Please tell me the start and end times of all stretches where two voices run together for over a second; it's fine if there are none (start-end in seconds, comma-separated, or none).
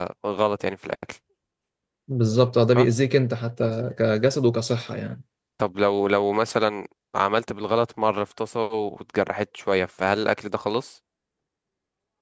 none